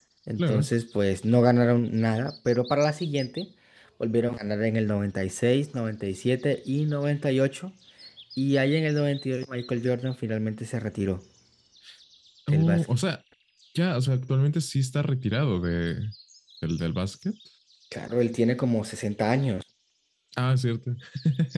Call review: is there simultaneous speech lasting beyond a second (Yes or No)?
No